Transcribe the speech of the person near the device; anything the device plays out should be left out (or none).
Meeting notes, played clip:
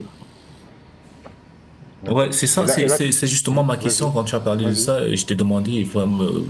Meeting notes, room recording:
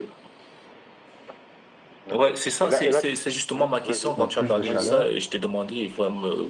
donc plus de chaleur